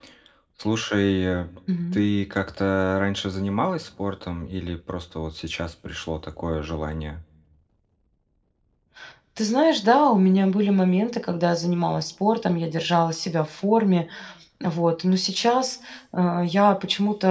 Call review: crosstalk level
none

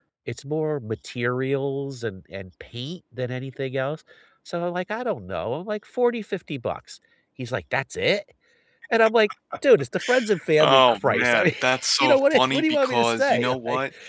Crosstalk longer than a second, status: present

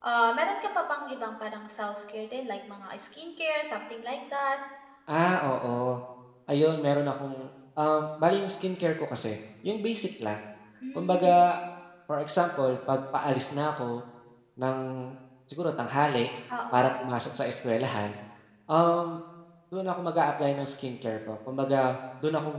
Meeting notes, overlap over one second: none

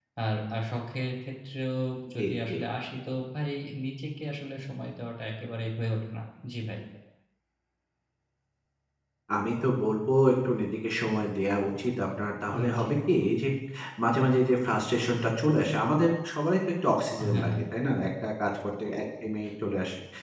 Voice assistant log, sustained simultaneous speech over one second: none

